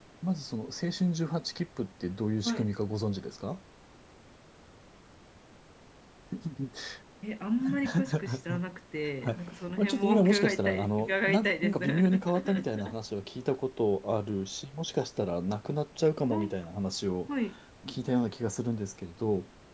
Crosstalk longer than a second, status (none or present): present